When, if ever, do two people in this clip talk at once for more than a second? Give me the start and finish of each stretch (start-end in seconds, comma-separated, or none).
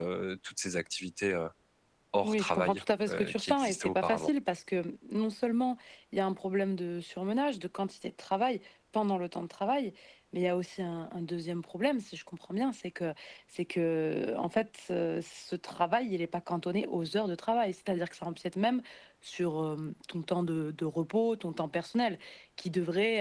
2.2-4.3